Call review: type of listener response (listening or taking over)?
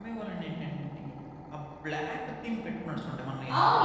taking over